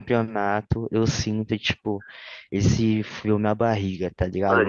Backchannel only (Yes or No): No